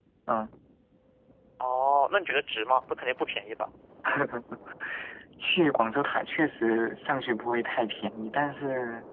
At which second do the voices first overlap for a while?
none

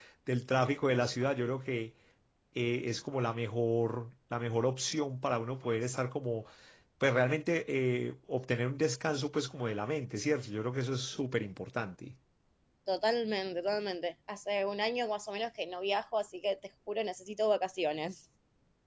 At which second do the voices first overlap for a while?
none

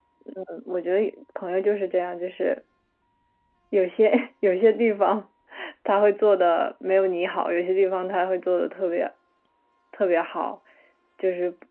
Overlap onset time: none

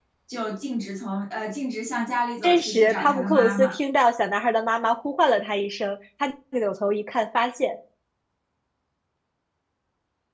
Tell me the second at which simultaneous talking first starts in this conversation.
2 s

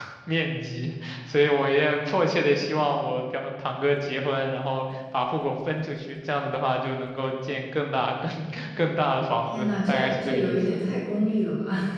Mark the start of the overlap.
10 s

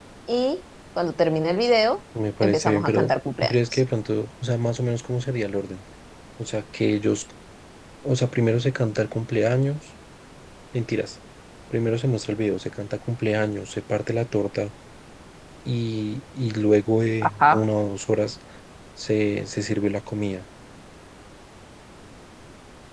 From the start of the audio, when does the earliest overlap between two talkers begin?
2 s

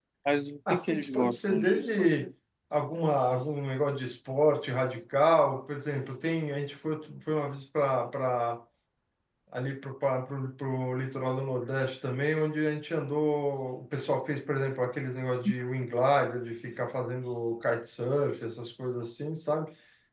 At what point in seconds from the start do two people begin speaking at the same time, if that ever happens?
1 s

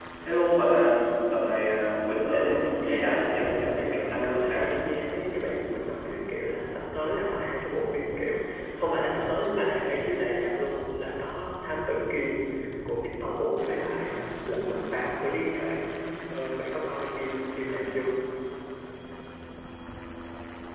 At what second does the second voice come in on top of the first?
2 s

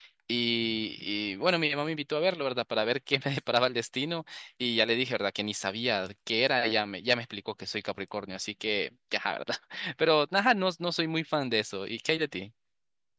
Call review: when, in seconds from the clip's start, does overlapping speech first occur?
none

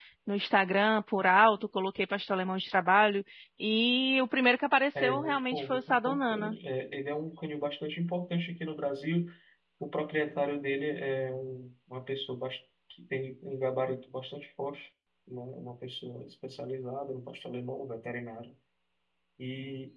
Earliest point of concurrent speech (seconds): 5 s

